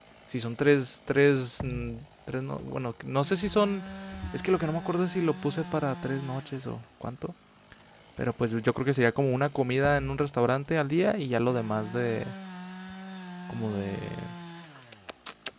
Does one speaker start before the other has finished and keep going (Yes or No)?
No